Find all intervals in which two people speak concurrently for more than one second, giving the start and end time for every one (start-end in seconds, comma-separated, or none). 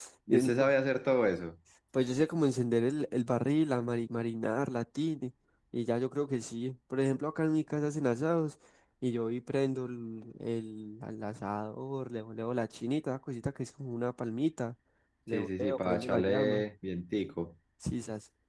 15.3-16.6